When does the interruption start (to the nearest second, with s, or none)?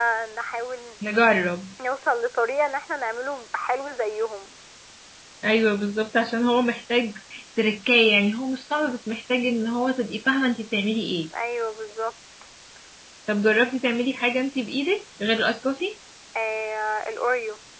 none